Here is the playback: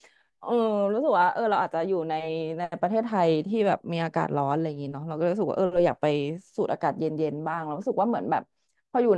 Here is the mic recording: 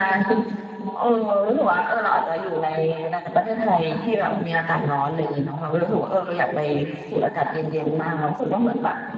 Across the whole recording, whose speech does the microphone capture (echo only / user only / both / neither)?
echo only